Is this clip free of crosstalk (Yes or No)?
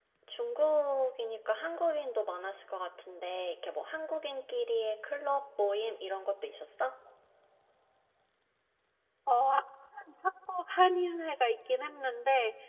Yes